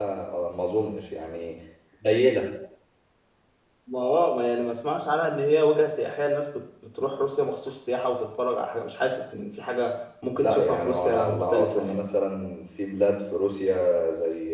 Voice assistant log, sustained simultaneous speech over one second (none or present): present